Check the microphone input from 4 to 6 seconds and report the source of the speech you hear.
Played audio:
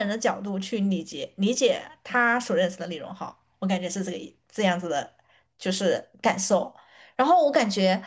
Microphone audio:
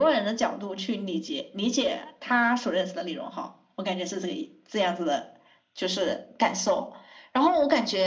echo only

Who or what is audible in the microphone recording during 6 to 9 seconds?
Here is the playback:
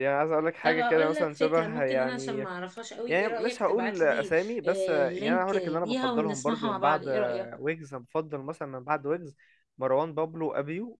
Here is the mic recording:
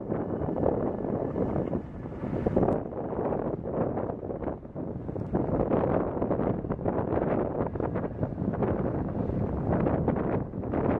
neither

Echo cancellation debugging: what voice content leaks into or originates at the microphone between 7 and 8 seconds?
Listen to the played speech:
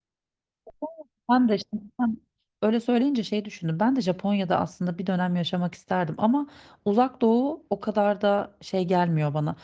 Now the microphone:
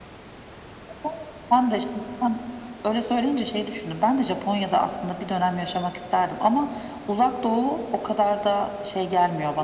echo only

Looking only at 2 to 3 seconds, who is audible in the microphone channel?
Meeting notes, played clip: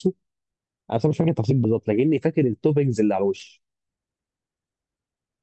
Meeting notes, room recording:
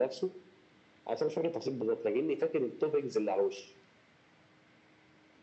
echo only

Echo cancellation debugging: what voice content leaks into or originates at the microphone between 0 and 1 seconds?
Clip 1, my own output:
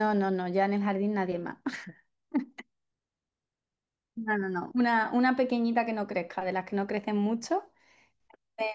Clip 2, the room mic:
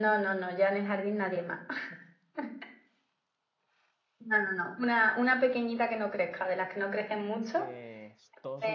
echo only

